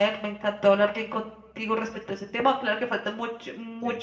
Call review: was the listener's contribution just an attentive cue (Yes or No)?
Yes